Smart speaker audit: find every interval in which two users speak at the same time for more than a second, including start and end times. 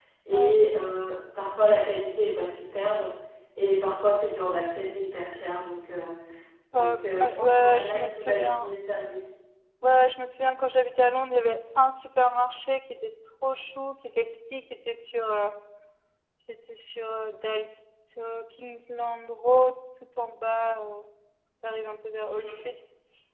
6.7-8.7

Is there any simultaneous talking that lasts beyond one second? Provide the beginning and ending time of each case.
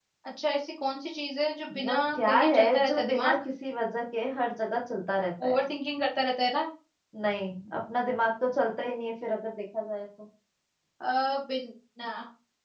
1.9-3.4

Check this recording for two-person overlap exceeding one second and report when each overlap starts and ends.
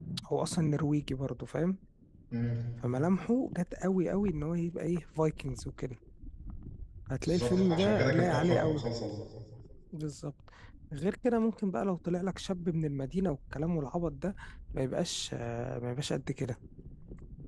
7.2-8.8

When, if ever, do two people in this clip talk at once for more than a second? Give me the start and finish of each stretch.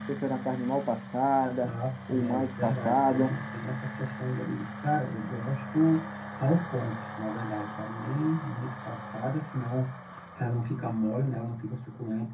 2.1-3.3

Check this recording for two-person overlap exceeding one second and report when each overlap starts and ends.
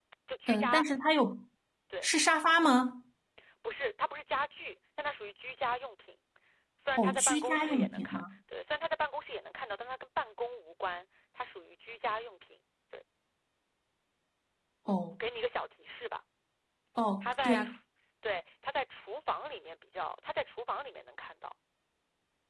7.0-8.2

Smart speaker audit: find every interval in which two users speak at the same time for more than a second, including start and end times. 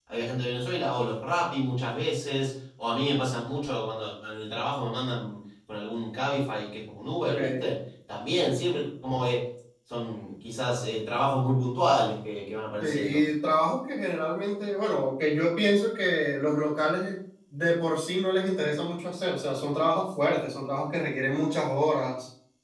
none

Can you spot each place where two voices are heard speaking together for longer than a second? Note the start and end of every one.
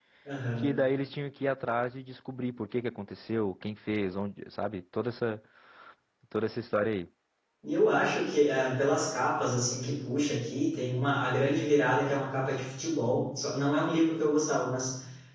none

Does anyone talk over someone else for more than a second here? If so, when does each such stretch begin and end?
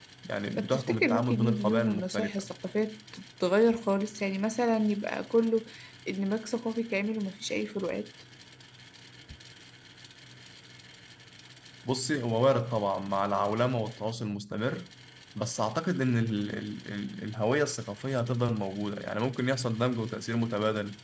0.5-2.5

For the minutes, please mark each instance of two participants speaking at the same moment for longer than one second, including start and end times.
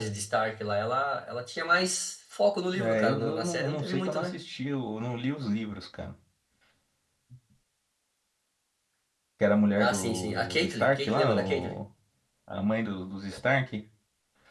2.8-4.4, 9.8-11.8

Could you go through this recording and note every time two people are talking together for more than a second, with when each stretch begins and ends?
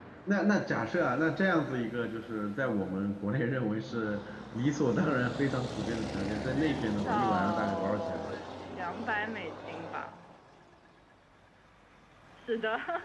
6.6-8.3

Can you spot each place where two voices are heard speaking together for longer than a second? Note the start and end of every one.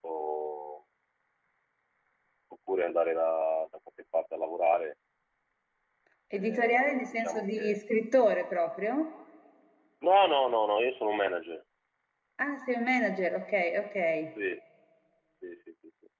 6.4-7.8

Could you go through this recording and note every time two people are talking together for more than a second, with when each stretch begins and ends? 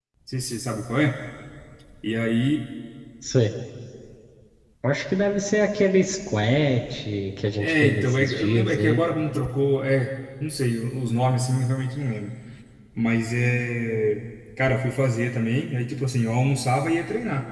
7.6-9.0

